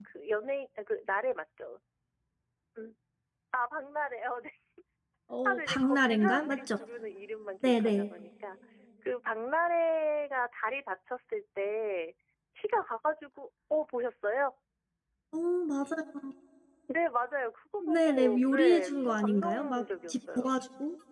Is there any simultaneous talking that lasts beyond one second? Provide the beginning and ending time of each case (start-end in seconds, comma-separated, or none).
5.4-6.8, 17.9-20.5